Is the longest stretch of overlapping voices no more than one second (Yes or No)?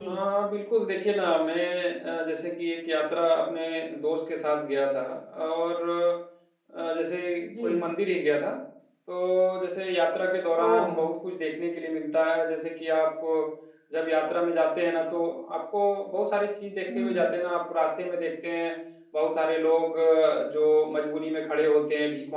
Yes